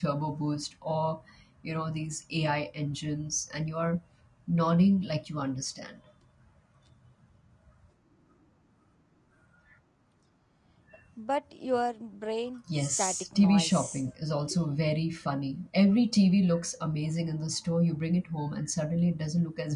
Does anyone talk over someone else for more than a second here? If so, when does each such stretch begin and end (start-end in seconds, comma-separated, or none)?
12.8-14.1